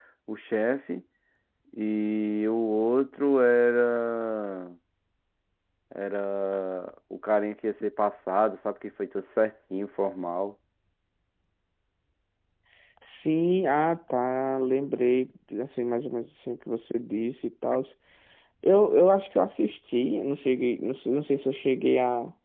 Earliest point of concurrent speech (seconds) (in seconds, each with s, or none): none